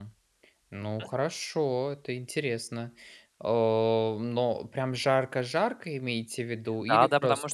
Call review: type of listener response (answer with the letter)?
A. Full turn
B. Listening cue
A